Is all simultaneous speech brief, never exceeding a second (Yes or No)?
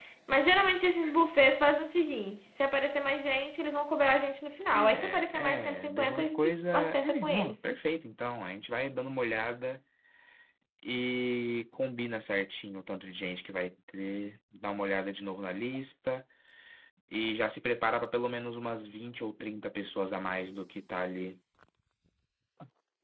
No